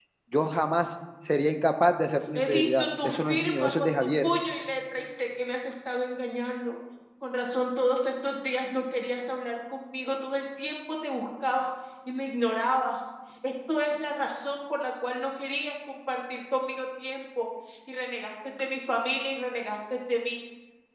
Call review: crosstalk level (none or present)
present